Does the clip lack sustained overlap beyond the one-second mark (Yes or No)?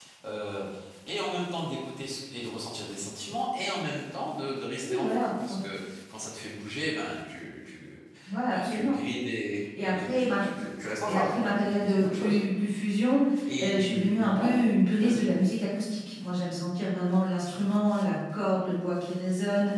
No